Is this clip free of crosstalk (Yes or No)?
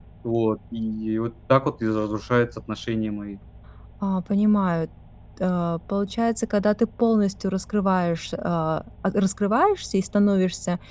Yes